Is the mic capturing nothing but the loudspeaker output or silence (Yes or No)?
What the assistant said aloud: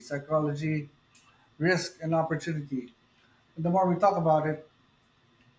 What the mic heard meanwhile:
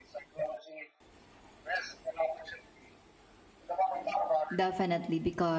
No